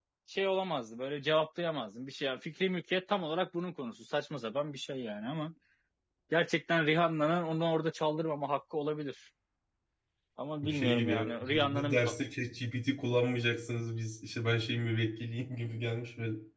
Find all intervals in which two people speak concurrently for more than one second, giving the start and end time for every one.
10.6-12.0

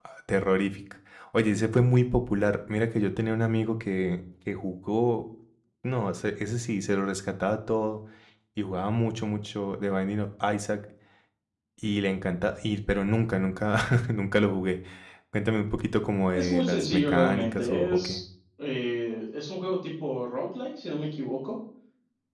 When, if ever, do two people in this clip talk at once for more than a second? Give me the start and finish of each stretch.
16.3-18.2

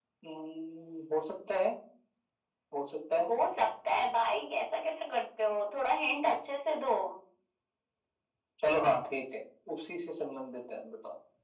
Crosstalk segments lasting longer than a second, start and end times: none

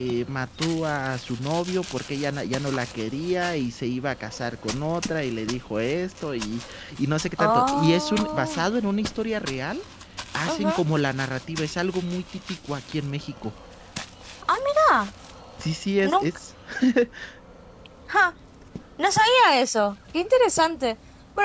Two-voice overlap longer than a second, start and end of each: 7.4-8.7

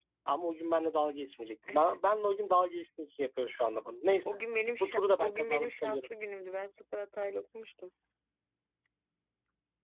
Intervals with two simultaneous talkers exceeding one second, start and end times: 4.8-6.1

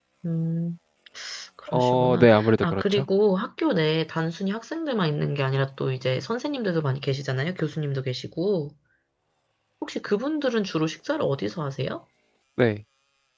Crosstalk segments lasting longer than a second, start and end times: 1.7-3.0

